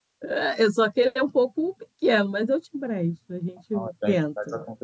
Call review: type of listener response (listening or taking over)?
taking over